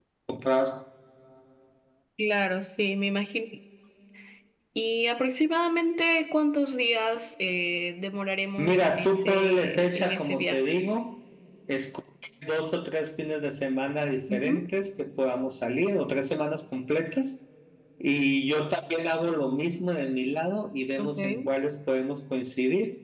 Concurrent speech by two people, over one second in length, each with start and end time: 8.6-10.6

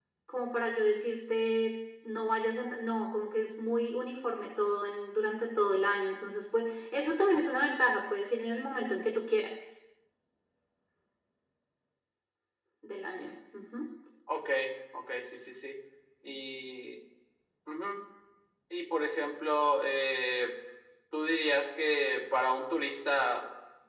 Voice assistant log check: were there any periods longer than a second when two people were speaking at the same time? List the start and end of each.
none

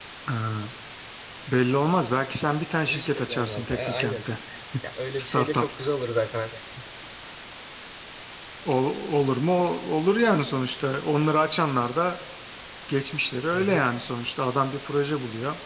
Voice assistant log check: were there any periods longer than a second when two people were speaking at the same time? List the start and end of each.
2.9-4.2

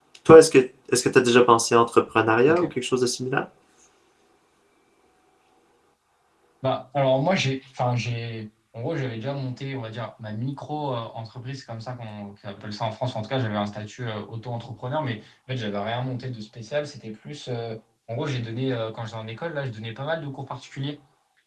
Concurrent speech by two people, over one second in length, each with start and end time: none

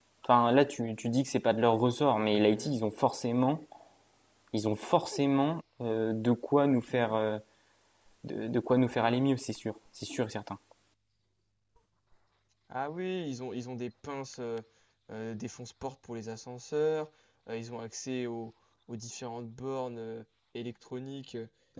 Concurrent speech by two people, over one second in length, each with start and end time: none

